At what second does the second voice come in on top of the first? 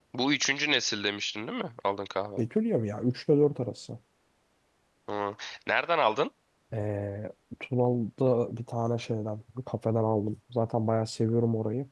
none

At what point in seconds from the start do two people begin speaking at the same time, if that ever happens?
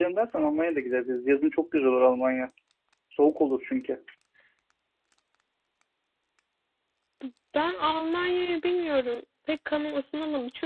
none

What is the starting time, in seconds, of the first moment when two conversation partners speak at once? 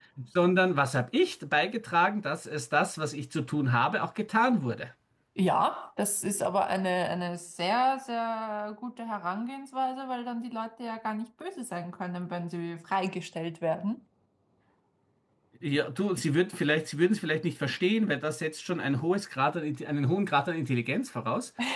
none

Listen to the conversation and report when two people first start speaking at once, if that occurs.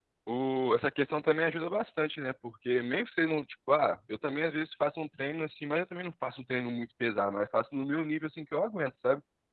none

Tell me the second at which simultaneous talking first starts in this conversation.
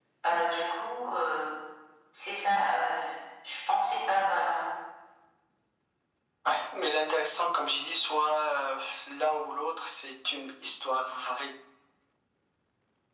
none

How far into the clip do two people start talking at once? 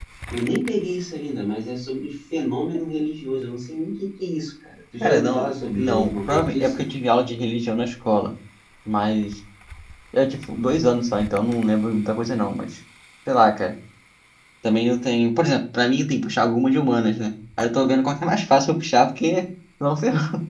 5.0 s

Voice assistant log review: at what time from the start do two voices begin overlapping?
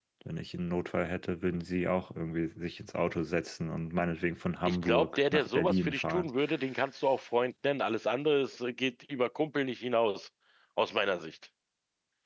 4.7 s

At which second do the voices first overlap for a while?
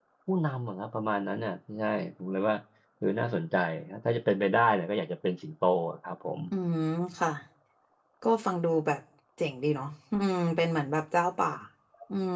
none

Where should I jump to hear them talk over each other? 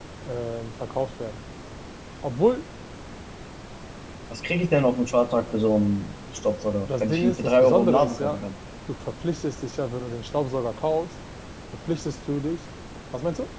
6.8 s

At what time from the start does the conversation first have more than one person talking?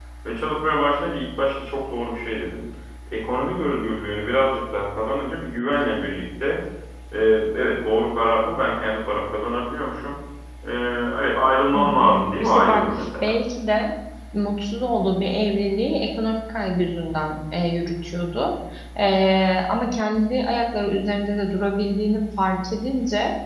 11.8 s

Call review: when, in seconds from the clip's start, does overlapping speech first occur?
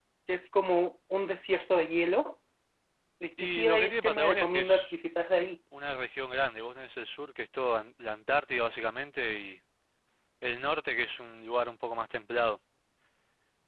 3.4 s

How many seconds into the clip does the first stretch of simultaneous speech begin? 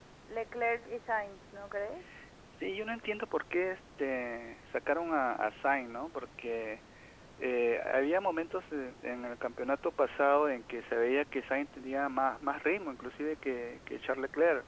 none

